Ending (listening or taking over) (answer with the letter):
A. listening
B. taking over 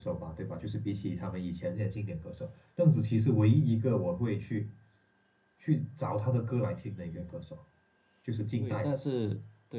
B